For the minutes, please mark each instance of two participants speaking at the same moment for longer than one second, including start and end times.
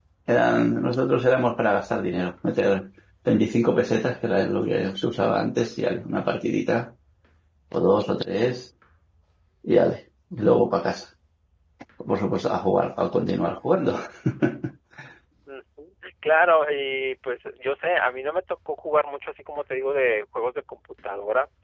none

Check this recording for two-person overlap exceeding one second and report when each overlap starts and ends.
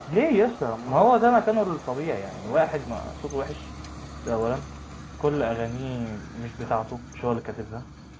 none

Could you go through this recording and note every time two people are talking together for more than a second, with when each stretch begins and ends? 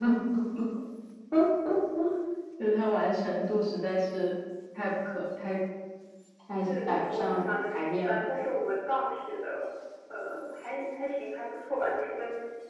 6.6-8.3

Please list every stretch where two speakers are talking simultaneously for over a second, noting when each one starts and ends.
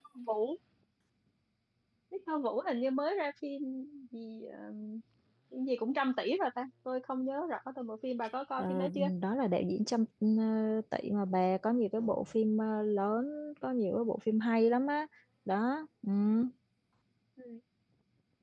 none

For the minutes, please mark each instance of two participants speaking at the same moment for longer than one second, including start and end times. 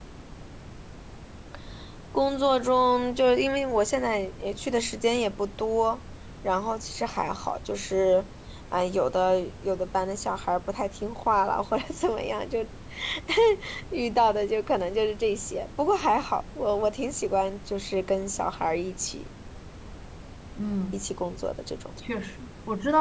none

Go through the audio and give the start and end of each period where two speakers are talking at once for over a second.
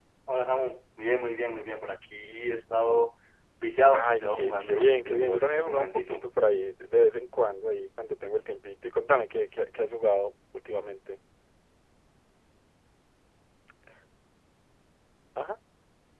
4.0-6.3

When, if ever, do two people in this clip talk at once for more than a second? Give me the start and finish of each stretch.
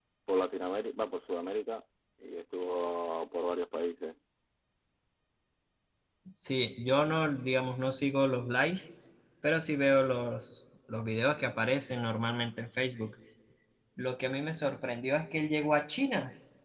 none

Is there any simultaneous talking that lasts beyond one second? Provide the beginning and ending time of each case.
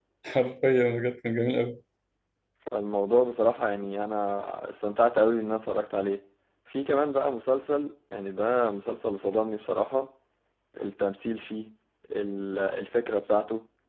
none

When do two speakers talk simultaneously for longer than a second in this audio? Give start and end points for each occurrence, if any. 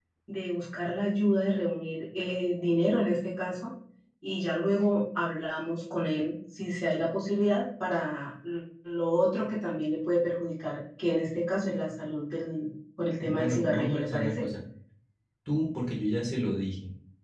13.2-14.4

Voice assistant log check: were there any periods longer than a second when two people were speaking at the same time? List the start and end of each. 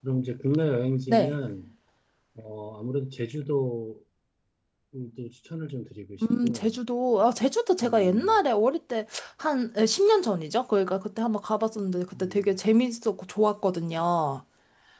none

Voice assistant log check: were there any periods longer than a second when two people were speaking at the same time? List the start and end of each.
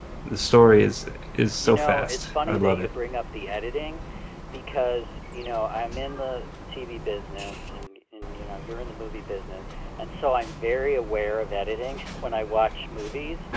1.6-2.9

